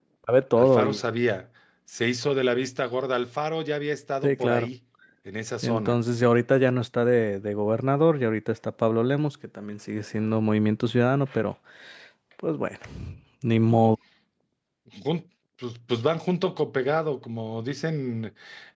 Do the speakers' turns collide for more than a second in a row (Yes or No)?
No